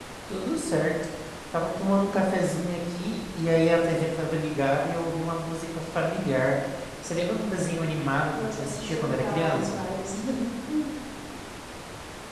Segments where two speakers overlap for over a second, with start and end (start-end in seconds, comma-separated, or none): 8.4-9.8